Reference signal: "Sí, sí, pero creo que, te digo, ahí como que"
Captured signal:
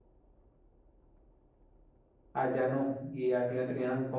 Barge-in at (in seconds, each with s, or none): 2.3 s